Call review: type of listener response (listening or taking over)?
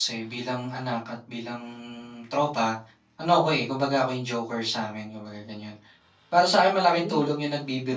listening